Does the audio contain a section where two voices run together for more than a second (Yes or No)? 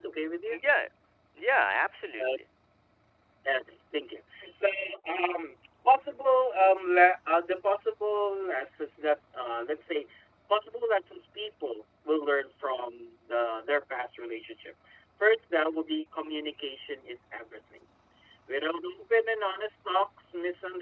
No